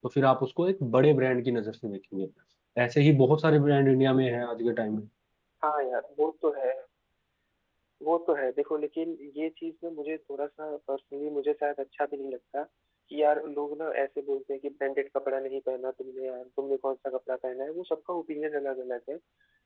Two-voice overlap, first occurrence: none

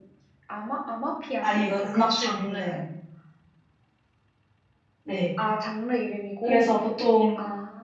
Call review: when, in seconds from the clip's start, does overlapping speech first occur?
1 s

